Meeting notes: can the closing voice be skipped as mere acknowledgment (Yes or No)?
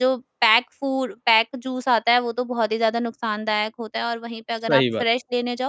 Yes